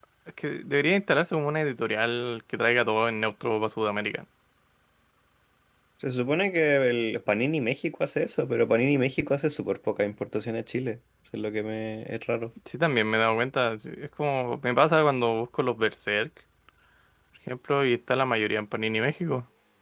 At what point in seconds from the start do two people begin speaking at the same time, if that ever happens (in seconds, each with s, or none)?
none